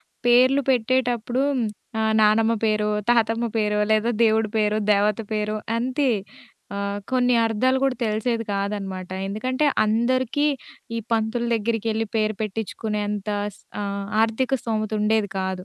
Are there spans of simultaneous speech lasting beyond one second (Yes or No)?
No